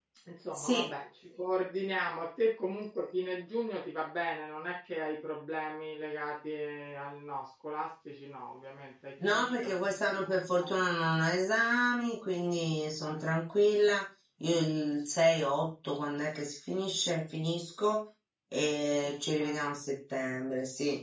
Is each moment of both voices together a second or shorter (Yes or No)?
No